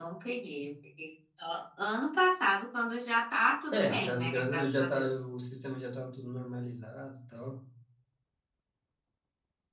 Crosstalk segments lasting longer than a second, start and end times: 3.7-5.1

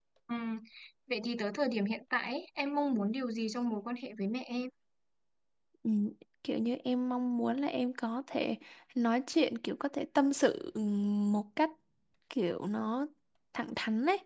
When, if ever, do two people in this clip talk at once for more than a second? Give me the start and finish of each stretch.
none

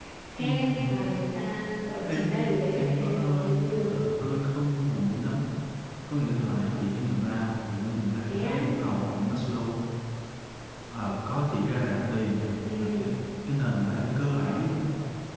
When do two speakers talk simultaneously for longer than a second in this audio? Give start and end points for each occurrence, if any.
2.0-3.9

